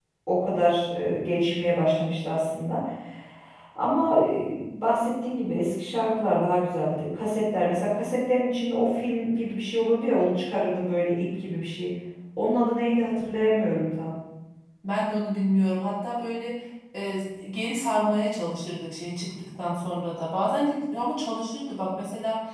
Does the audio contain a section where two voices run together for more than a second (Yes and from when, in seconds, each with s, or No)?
No